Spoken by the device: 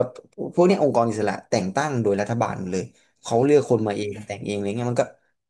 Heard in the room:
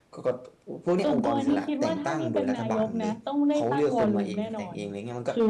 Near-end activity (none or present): present